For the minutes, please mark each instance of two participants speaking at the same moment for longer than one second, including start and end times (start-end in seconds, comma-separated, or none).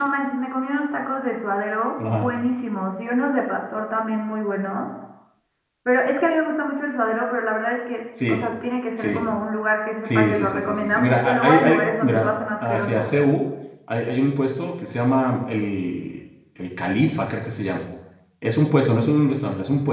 10.1-13.1